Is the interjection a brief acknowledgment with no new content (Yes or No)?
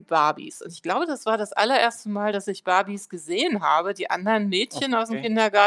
Yes